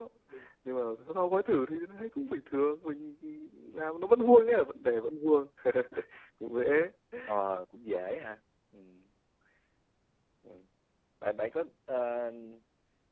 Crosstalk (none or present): none